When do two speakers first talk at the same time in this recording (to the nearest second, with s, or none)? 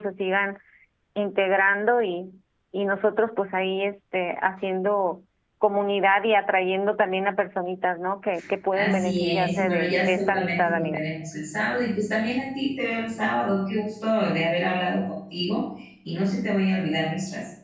9 s